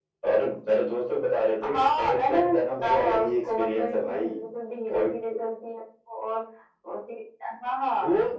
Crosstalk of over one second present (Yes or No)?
Yes